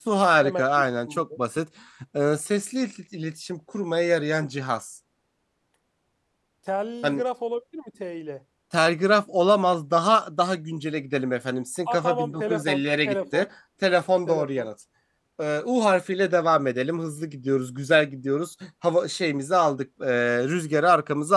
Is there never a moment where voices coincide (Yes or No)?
No